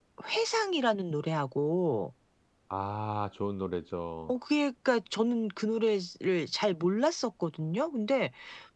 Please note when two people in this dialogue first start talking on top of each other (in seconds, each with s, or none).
none